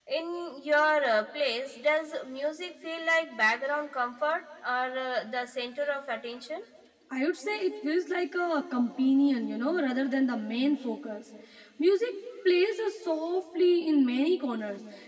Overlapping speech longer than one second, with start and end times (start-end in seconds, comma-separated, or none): none